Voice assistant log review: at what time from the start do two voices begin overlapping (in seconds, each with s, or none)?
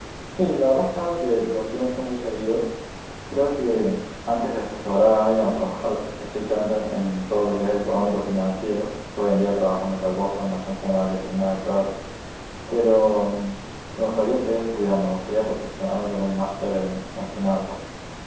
none